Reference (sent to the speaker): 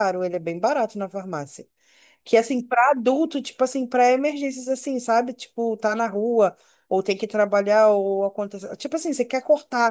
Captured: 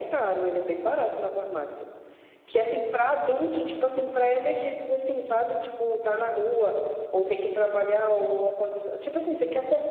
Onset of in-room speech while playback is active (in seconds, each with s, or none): none